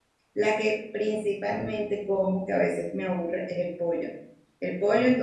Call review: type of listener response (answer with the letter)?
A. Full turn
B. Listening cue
B